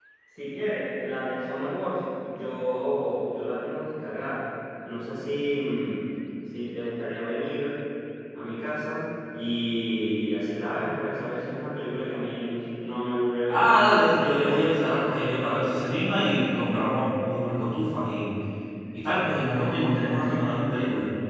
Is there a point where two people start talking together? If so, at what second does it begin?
13.5 s

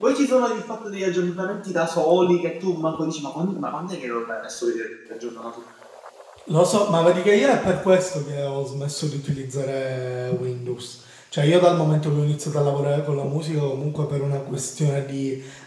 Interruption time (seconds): none

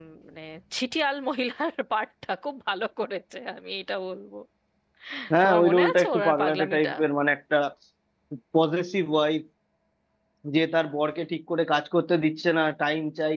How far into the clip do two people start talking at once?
5.4 s

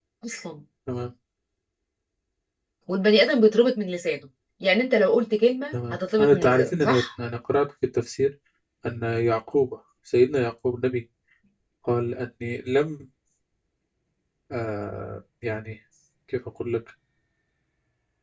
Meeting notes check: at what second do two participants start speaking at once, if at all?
5.7 s

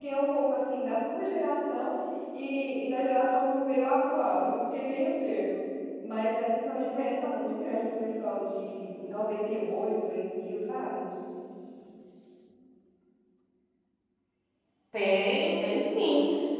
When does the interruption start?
none

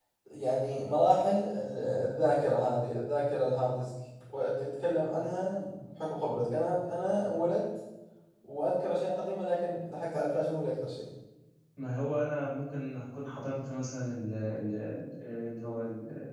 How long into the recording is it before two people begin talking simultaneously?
none

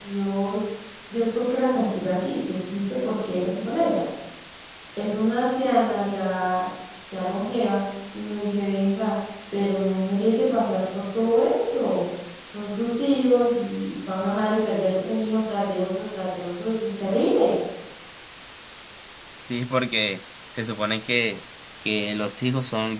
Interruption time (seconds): none

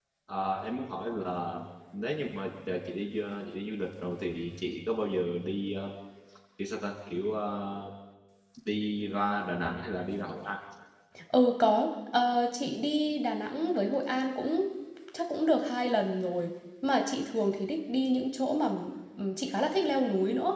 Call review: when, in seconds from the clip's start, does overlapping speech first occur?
none

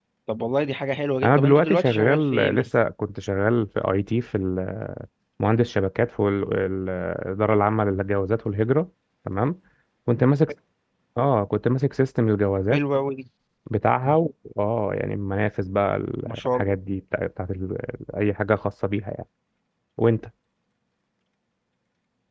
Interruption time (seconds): 1.2 s

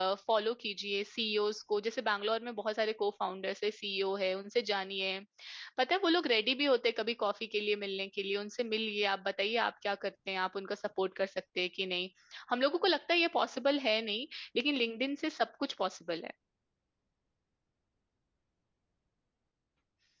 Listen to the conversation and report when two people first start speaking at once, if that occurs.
none

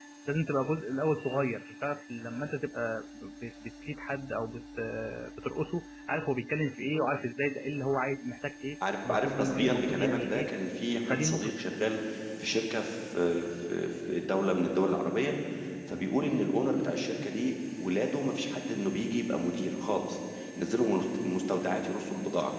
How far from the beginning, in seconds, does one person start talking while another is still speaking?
9.1 s

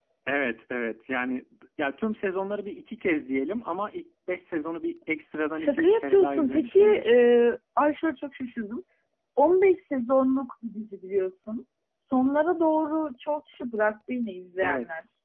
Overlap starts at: 5.5 s

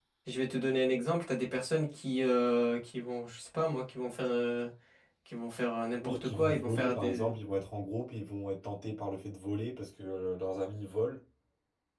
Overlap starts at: 6.0 s

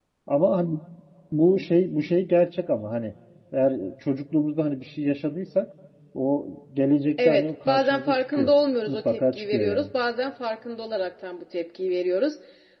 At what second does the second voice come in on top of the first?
7.2 s

